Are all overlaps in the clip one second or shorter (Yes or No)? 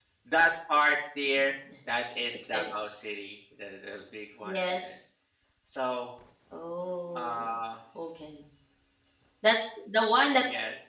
Yes